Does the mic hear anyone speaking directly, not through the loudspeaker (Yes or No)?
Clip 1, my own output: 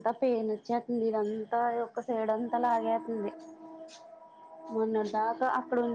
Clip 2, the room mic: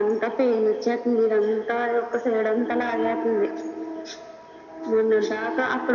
No